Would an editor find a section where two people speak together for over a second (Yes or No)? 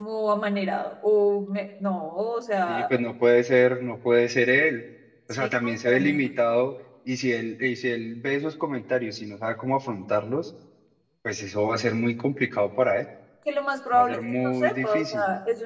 Yes